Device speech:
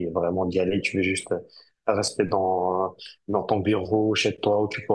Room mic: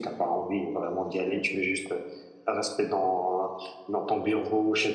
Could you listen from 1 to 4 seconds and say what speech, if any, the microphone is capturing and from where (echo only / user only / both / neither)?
echo only